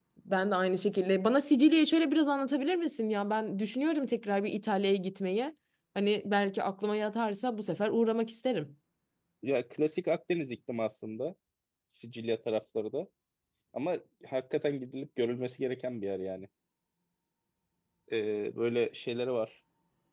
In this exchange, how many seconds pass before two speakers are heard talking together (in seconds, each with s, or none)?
none